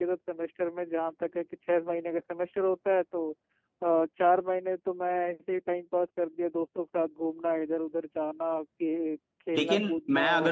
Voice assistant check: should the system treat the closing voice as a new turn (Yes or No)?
Yes